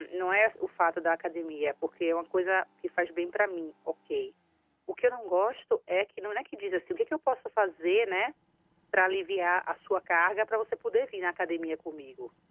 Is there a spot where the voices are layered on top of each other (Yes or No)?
No